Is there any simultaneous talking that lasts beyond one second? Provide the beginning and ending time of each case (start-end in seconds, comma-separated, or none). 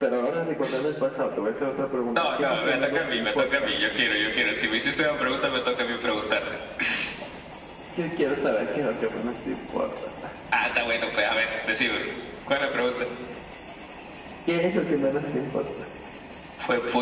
2.2-3.7